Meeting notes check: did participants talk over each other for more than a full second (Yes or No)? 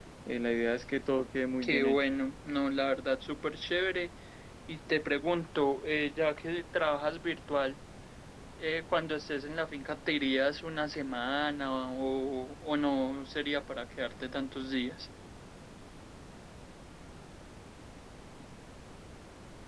No